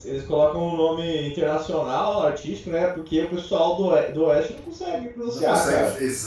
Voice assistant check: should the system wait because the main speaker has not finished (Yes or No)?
No